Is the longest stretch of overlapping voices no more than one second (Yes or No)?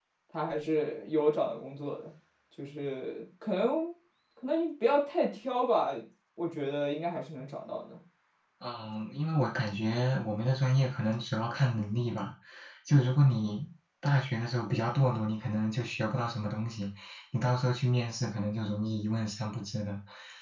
Yes